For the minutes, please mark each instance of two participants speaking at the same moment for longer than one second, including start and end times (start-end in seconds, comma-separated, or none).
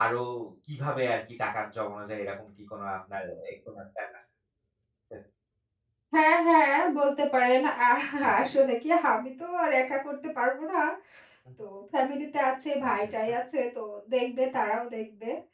none